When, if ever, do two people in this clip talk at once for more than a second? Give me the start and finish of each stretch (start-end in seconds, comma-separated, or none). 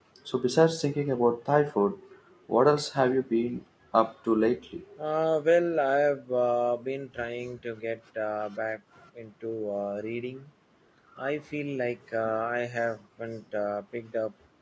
none